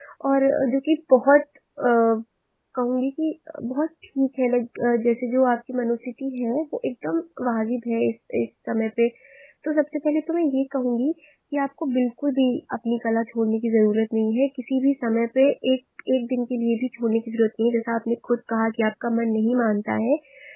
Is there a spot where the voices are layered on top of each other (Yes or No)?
No